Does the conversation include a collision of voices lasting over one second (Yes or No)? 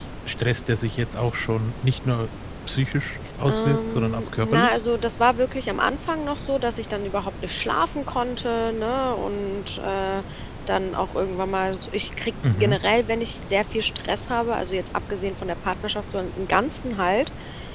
Yes